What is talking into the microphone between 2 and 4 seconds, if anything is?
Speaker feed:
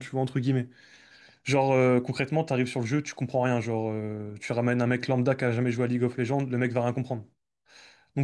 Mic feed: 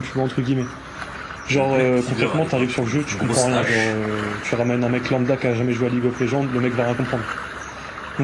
both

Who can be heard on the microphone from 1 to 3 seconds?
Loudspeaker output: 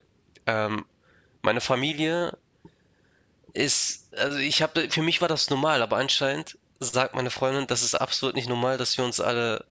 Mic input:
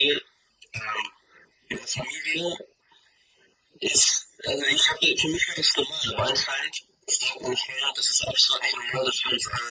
echo only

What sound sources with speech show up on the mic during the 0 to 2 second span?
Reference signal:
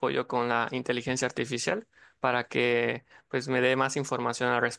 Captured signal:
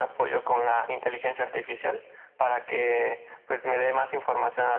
echo only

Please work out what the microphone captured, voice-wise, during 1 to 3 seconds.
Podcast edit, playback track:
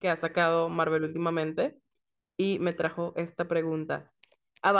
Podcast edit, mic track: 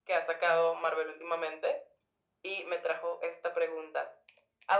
echo only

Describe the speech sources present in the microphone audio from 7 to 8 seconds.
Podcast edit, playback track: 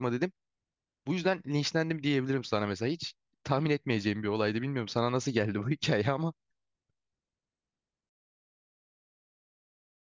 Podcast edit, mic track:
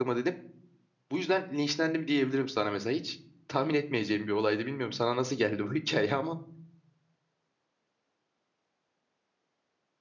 neither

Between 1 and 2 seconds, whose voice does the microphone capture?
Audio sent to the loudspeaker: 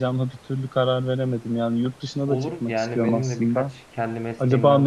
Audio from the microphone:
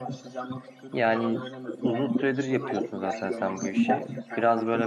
both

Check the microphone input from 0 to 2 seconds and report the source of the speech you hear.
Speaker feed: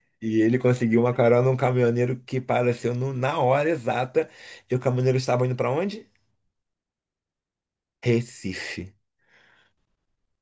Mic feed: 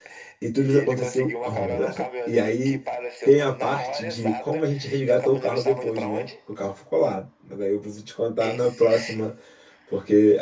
both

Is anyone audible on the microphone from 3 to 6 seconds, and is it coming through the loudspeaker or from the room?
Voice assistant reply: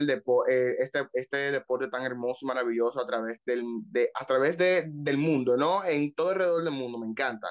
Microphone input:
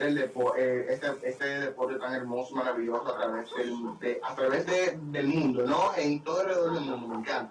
echo only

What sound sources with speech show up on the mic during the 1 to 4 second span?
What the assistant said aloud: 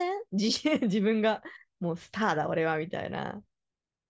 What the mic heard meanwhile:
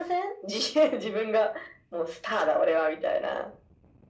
echo only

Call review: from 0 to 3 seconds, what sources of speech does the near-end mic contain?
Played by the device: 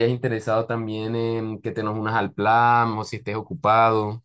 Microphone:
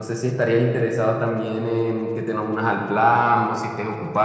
echo only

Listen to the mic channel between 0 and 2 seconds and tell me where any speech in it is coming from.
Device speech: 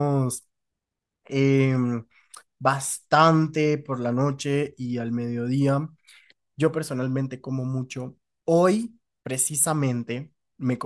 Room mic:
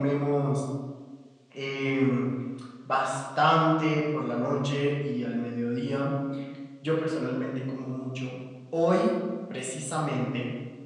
echo only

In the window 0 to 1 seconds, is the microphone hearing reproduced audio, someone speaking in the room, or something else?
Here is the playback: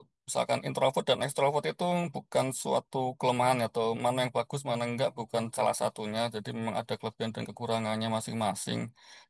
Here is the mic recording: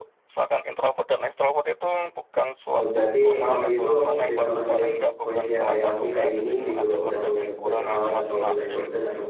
echo only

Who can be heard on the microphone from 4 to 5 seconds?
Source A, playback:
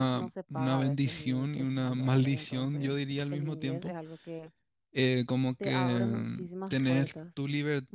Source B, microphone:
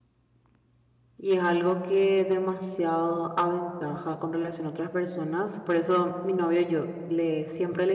user only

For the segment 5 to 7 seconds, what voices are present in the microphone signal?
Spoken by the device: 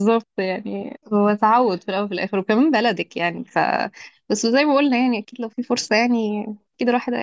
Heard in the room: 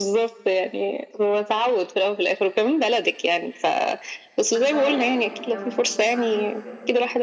both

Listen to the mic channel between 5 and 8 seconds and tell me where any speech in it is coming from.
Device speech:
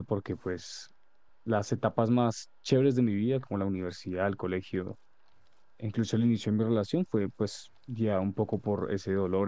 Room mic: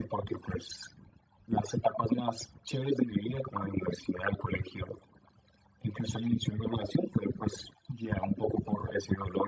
echo only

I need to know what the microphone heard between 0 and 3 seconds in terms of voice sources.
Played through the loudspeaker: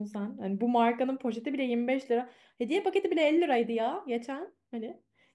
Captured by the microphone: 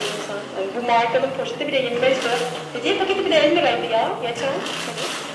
echo only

